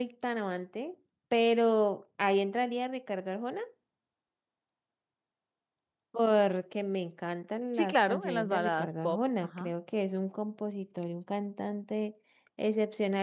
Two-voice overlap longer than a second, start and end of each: 7.8-9.7

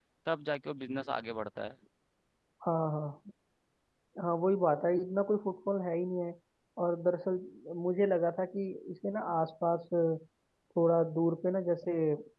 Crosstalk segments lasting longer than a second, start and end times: none

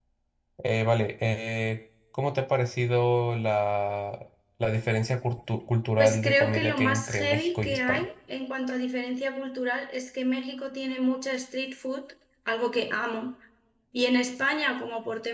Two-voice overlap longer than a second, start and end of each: 6.0-8.1

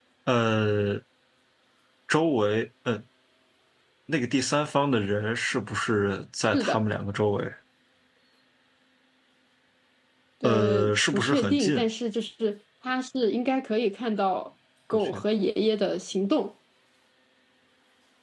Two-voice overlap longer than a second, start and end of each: 10.4-11.8

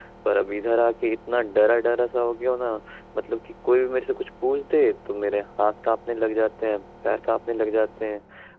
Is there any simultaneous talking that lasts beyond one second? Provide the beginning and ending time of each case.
none

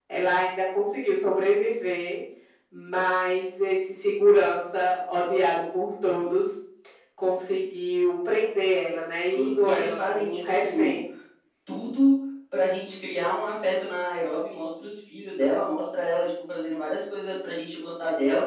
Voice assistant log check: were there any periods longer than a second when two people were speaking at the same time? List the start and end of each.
9.3-11.0

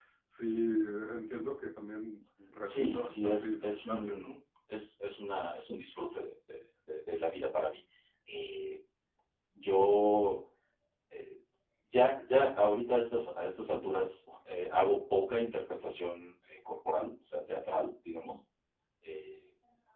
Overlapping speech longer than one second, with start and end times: 2.6-4.3

